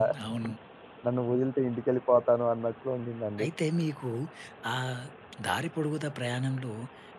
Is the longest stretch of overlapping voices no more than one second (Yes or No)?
Yes